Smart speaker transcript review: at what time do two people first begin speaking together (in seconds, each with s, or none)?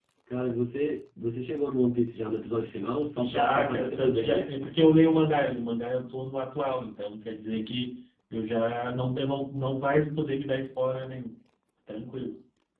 3.2 s